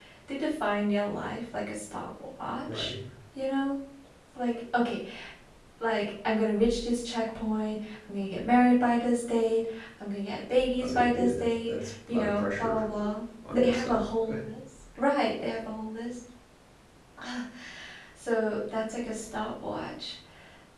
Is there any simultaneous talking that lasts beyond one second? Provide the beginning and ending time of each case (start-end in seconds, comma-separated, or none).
10.8-12.8